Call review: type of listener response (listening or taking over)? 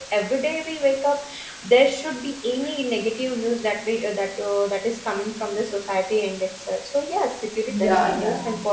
listening